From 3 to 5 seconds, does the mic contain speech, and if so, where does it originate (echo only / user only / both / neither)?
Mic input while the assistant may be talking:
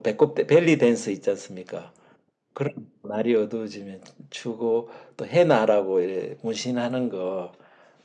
echo only